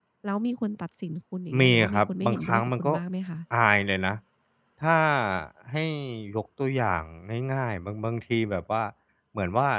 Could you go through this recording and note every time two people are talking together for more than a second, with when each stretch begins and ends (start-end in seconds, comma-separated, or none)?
1.6-2.9